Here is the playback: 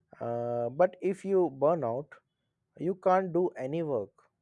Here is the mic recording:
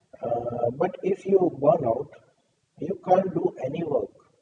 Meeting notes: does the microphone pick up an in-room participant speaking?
No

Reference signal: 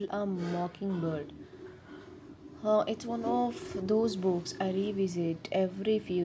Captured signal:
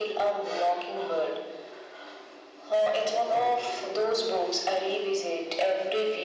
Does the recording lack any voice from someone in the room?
Yes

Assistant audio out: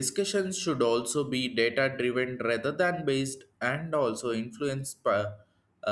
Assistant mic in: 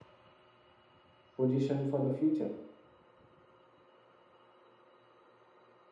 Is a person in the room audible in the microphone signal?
Yes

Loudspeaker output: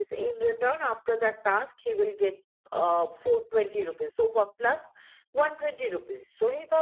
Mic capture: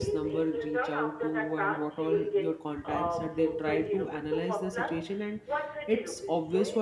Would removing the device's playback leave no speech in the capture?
No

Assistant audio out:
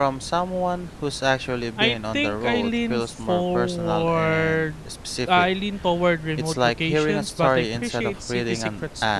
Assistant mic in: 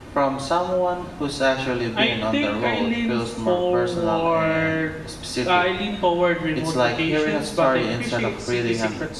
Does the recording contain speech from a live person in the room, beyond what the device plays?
No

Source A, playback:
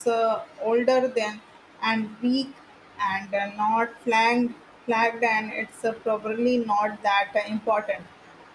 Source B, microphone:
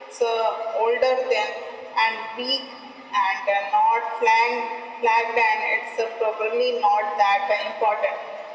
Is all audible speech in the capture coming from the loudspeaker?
Yes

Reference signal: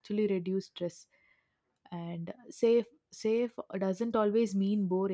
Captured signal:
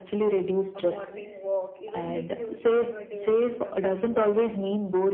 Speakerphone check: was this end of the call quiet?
No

